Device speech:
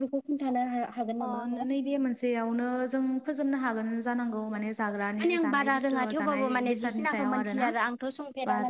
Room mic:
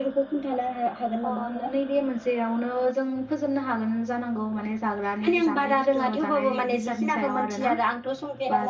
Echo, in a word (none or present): present